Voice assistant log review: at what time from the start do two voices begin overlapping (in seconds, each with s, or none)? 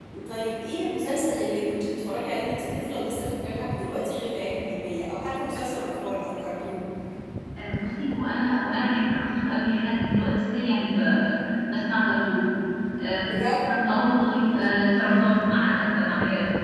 none